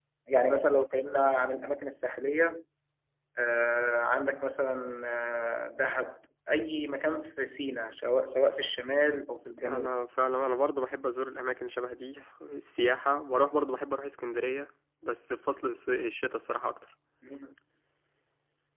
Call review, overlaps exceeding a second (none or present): none